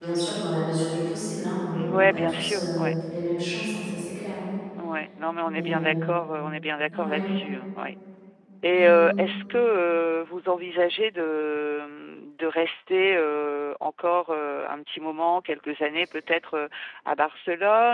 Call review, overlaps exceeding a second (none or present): present